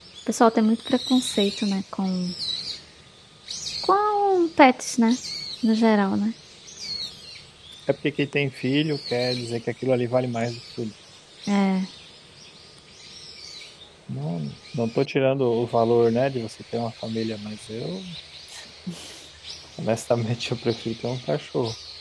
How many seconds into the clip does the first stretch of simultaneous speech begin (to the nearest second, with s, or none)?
none